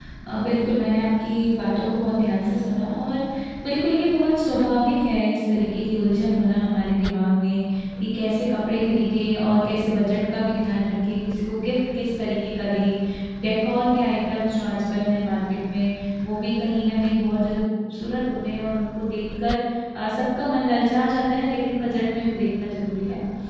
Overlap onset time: none

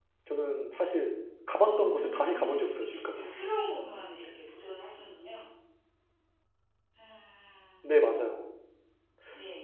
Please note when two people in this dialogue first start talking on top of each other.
2 s

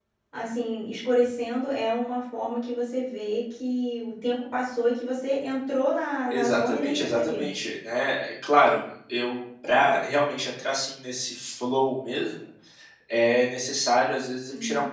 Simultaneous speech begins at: 6 s

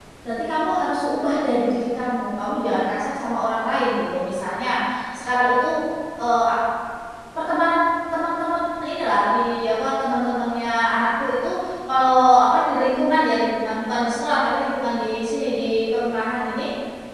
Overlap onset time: none

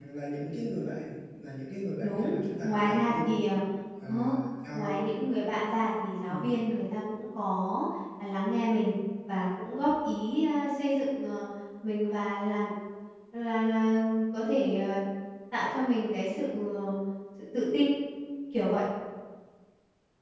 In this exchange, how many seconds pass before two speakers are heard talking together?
2 s

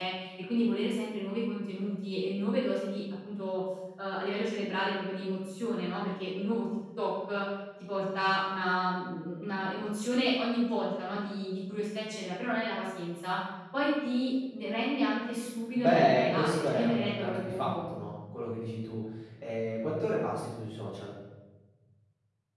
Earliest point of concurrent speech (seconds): 16 s

